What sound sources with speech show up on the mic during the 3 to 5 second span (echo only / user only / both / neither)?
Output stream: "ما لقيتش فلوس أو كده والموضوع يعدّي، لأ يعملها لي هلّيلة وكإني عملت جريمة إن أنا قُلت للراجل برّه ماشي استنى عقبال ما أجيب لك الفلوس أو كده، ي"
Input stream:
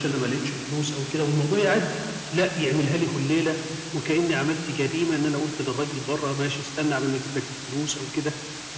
echo only